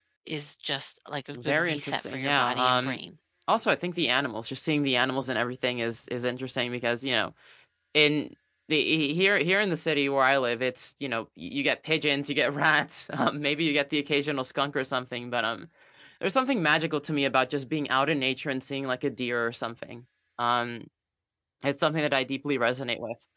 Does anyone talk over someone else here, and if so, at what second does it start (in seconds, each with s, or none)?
1.3 s